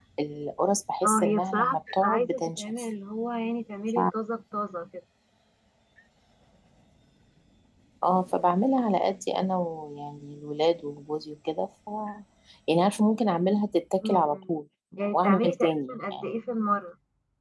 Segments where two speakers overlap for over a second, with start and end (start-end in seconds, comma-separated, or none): 1.1-2.7, 15.0-16.3